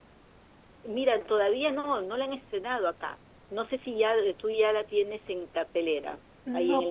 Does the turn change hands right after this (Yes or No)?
Yes